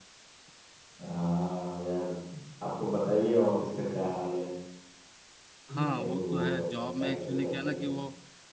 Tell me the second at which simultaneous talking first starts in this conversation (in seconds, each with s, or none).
5.8 s